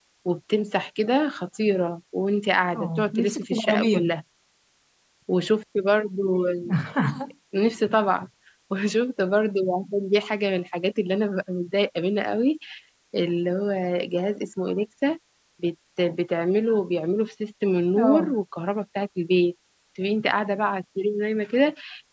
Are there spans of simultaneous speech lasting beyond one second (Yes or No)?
Yes